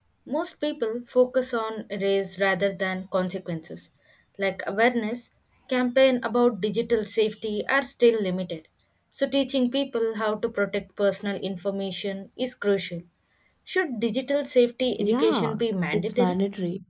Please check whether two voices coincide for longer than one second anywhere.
Yes, from 15.0 s

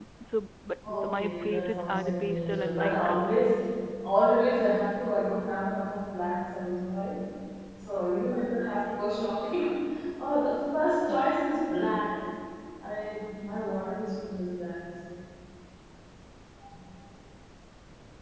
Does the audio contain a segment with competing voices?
Yes, from 0.9 s

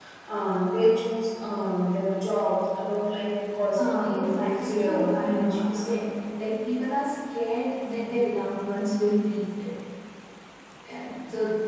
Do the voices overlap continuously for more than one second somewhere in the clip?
Yes, from 3.8 s

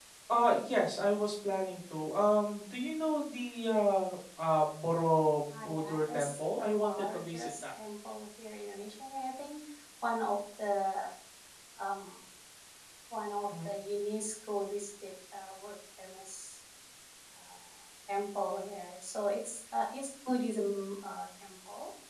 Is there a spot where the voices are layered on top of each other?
Yes, from 5.5 s

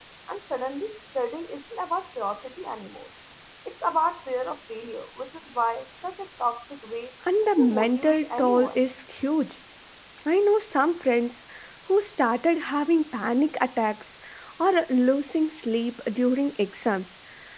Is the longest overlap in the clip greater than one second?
Yes, from 7.6 s

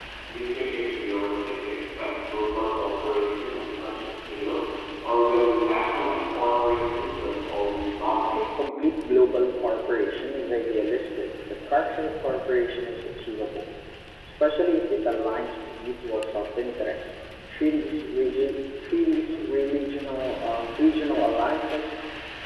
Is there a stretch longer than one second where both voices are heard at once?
No

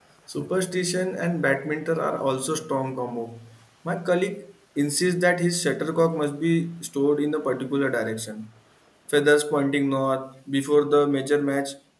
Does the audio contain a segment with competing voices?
No

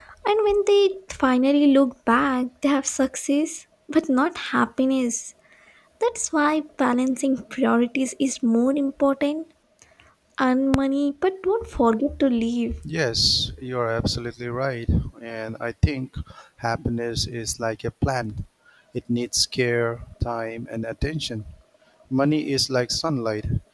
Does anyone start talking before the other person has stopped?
No

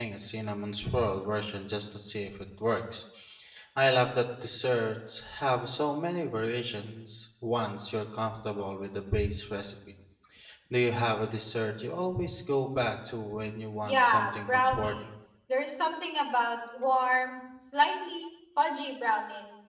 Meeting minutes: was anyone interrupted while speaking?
Yes, from 13.8 s

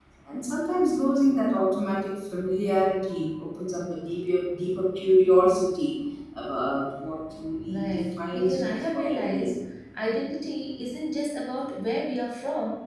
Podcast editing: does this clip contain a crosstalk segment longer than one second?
Yes, from 7.7 s

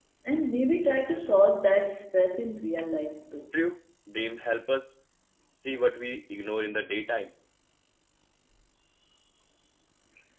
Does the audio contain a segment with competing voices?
No

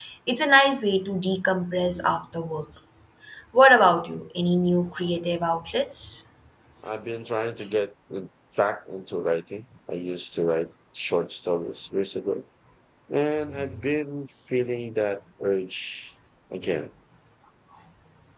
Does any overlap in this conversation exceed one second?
No

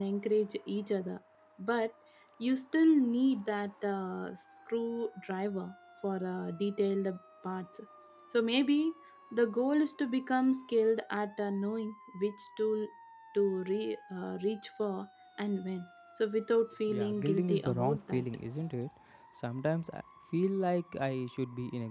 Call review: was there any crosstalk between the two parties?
Yes, from 16.9 s

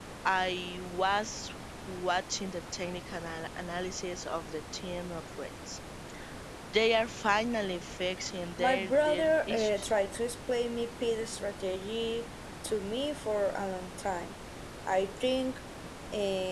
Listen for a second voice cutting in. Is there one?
Yes, from 8.6 s

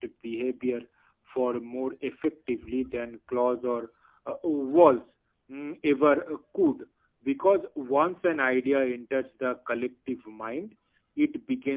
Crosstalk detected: No

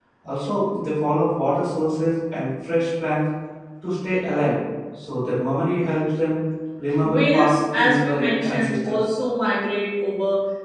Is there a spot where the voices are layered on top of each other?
Yes, from 7.0 s

